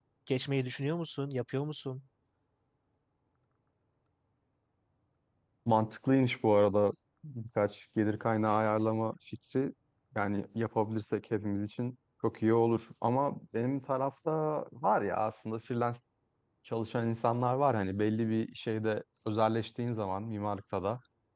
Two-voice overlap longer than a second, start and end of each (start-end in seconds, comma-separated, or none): none